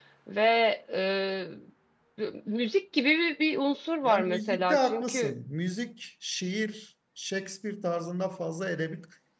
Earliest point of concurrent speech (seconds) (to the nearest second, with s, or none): 4 s